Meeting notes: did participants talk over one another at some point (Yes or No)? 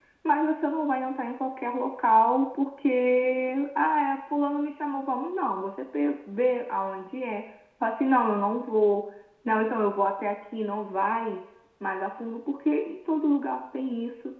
No